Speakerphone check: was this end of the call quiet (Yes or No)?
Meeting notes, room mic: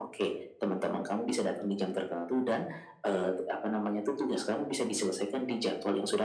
Yes